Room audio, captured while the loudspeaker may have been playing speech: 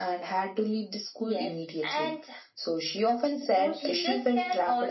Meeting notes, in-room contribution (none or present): present